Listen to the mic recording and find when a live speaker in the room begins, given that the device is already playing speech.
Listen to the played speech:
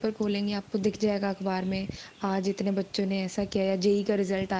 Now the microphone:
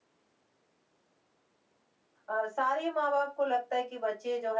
2.3 s

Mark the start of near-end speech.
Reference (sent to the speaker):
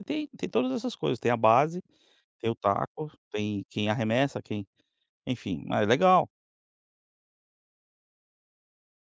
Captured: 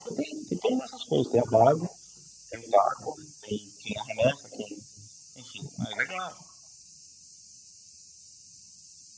none

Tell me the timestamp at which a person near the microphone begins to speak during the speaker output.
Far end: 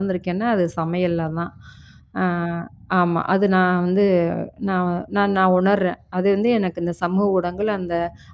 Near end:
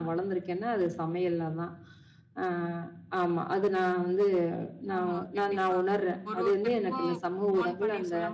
5.0 s

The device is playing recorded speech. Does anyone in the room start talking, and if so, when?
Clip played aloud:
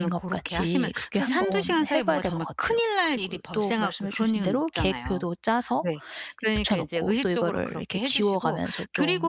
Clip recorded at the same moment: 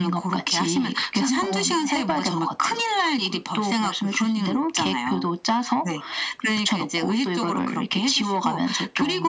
none

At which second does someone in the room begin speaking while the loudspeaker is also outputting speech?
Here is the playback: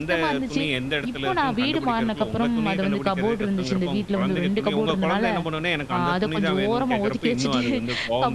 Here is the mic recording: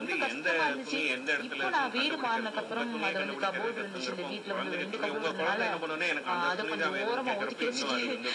none

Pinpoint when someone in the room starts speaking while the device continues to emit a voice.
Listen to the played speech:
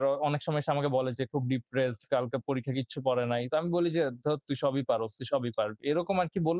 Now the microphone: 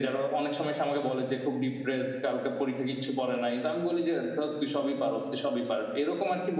none

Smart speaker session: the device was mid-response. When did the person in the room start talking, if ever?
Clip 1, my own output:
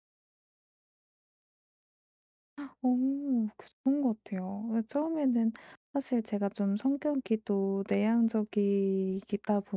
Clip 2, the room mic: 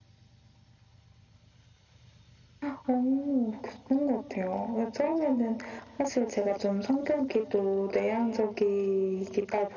none

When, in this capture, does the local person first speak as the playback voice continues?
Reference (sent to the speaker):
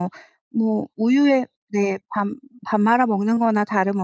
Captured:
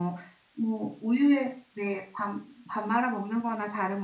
none

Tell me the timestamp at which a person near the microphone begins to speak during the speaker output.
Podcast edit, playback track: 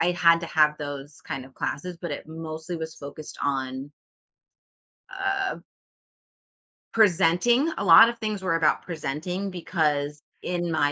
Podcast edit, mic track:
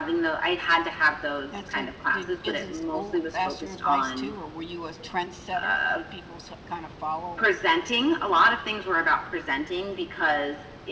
1.5 s

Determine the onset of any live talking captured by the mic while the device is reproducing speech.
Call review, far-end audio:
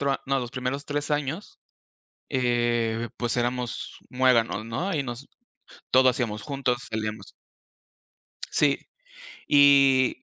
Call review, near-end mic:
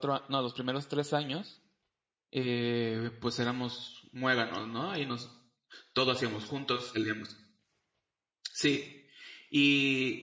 none

